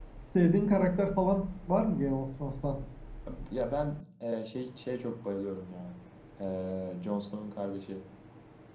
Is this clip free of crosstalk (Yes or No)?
Yes